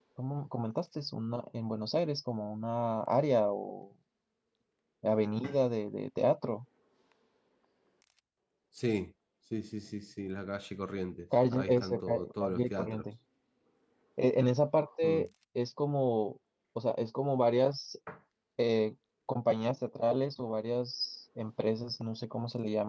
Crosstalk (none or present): present